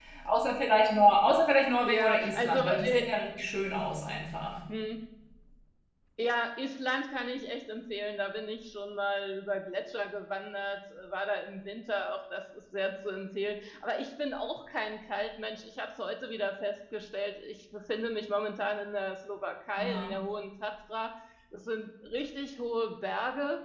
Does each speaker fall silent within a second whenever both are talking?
No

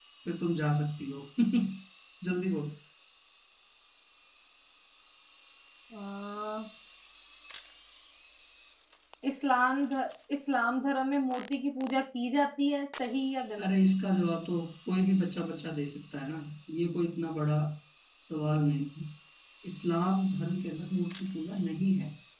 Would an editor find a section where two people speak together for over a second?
No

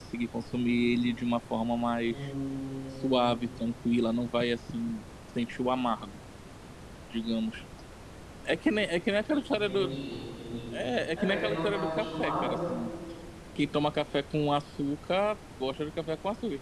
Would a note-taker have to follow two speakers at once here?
Yes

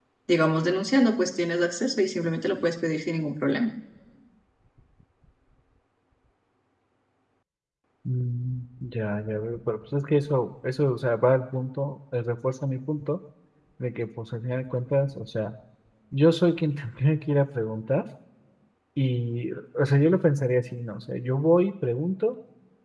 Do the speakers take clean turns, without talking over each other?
Yes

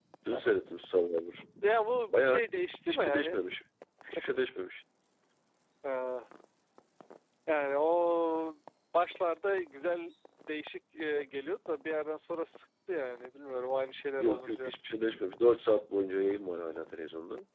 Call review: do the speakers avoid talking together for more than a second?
Yes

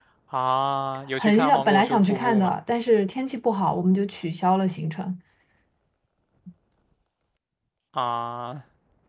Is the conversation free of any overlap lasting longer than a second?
No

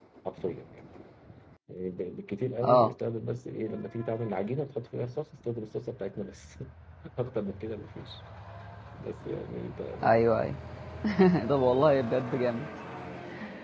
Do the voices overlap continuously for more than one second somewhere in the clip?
No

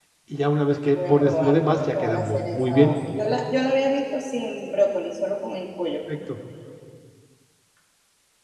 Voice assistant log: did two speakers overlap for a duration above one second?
Yes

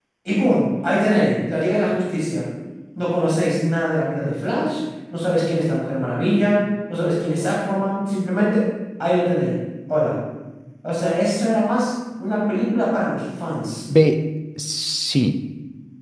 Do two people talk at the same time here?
No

